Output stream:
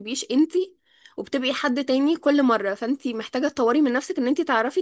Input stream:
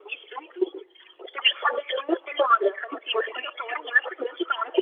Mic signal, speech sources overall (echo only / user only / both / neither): echo only